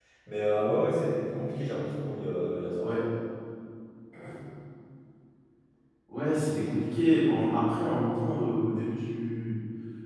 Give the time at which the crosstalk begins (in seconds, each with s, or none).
none